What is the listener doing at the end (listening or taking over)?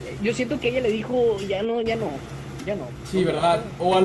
taking over